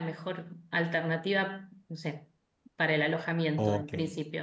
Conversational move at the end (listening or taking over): taking over